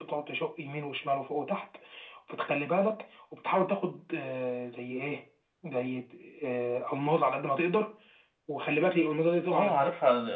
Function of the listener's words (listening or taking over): taking over